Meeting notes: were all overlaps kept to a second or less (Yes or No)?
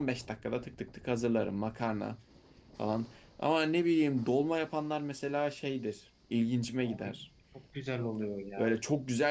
Yes